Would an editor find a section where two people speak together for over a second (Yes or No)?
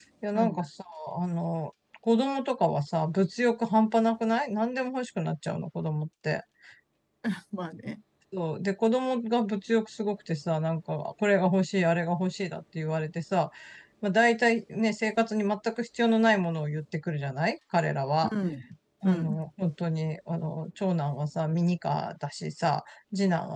No